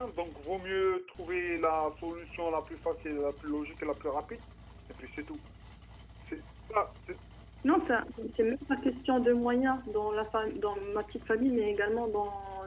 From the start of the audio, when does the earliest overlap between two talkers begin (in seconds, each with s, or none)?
none